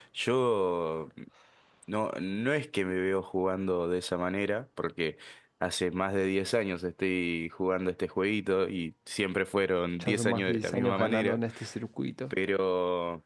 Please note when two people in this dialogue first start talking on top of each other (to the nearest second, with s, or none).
10 s